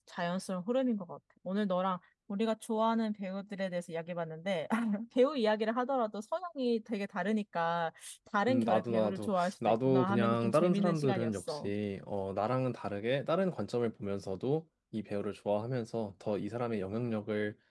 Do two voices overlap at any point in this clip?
Yes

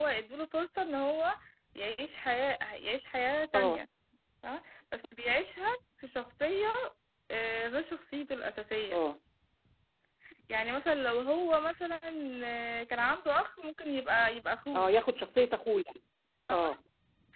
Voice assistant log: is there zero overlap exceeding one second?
Yes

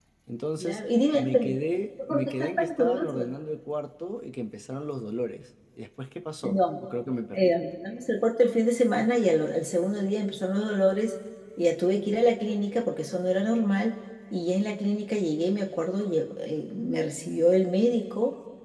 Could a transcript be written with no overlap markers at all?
No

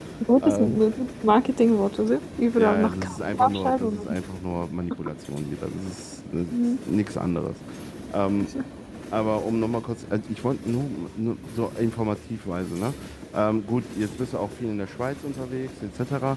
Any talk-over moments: Yes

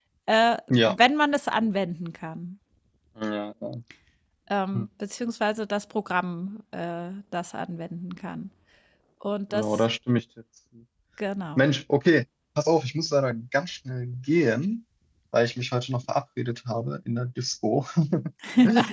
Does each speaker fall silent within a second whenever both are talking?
Yes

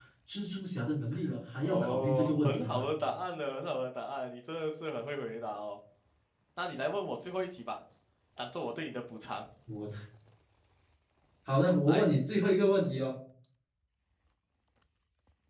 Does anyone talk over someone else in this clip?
Yes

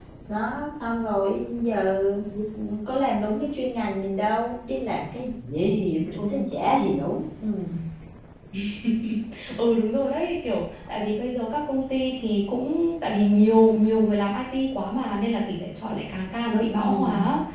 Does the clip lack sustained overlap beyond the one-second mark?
Yes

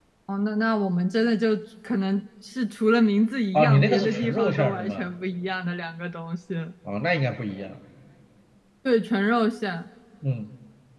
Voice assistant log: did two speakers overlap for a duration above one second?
Yes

